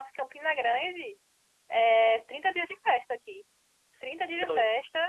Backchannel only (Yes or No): Yes